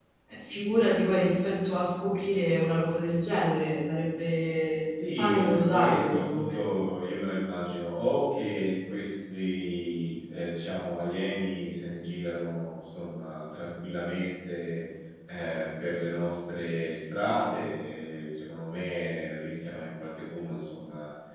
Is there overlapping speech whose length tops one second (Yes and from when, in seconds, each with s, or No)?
Yes, from 5.0 s